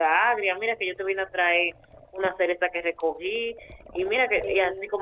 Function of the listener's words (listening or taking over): listening